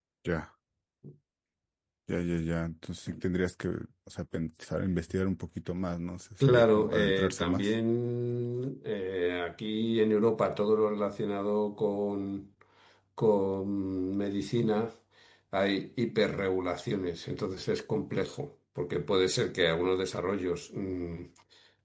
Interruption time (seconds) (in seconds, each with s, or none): 6.4 s